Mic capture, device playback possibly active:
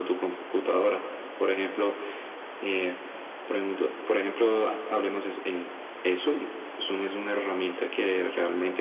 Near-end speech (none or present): none